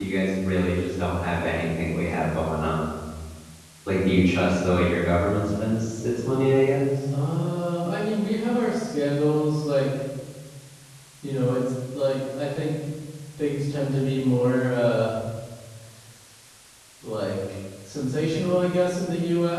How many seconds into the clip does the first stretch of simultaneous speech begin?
none

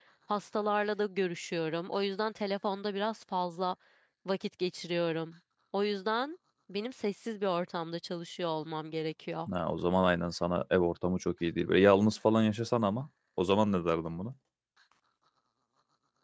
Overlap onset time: none

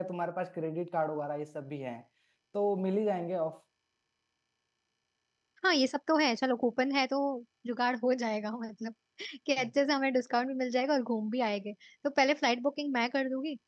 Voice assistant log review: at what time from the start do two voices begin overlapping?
none

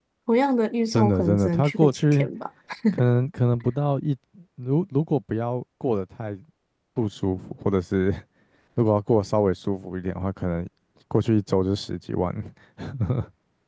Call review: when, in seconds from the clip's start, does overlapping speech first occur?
0.9 s

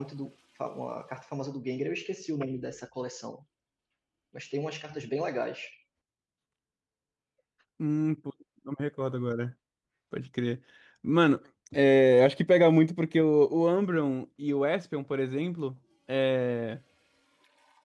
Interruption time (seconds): none

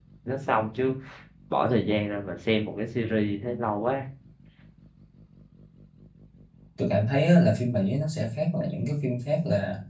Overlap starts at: none

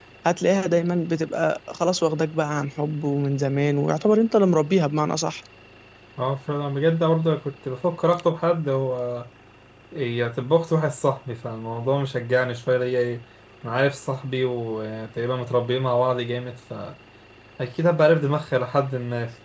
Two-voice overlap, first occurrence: none

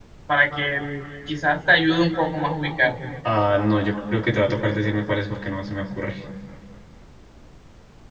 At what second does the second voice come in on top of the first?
none

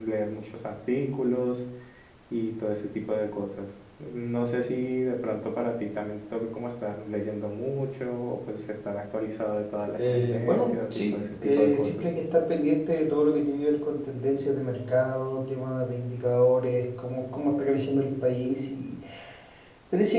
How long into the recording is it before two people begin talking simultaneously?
9.9 s

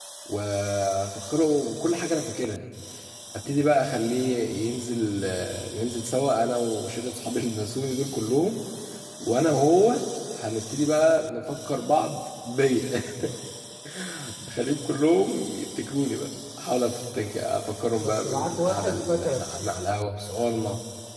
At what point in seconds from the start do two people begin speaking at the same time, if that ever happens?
18.0 s

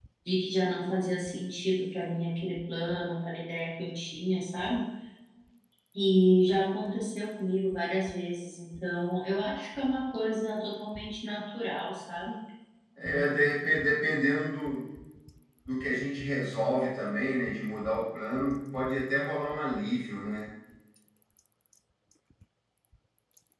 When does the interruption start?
none

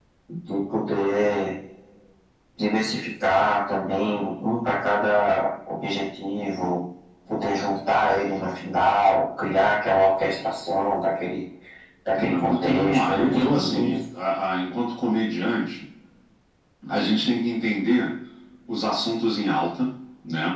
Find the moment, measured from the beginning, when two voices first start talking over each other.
12.2 s

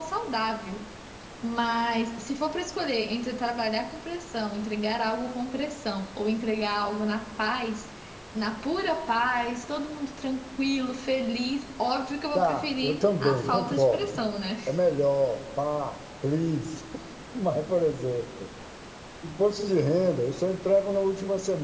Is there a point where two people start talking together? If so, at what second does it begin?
12.3 s

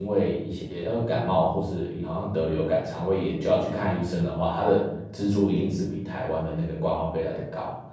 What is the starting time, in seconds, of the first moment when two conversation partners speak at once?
none

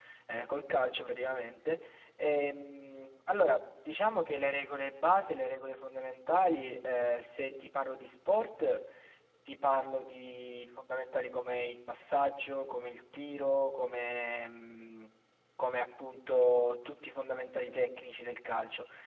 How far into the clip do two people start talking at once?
none

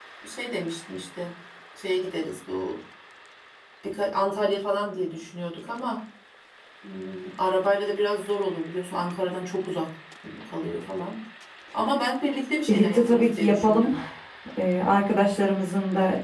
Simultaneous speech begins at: 12.7 s

